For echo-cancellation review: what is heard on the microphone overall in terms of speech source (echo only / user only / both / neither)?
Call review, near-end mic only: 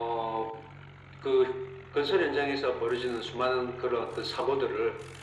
echo only